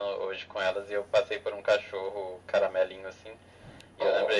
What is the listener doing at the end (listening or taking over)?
listening